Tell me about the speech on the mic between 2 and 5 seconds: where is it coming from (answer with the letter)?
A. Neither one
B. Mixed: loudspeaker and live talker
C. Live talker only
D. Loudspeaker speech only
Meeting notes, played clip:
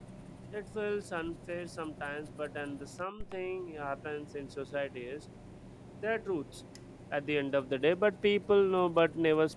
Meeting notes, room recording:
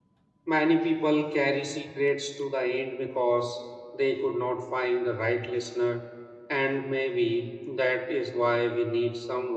C